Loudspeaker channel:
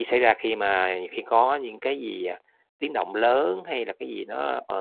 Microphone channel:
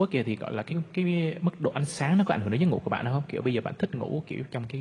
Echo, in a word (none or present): none